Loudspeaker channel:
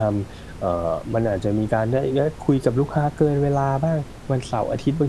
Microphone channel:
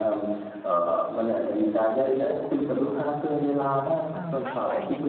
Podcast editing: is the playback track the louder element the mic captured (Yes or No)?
Yes